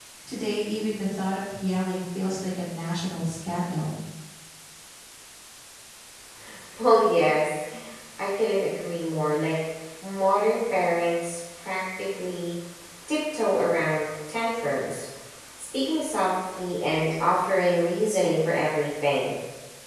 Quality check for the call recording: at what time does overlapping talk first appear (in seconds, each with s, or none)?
none